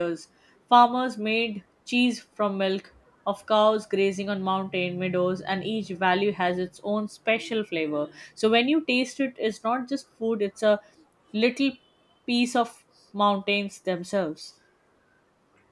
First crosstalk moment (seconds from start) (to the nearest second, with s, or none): none